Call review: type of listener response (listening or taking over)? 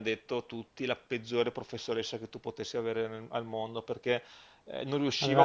listening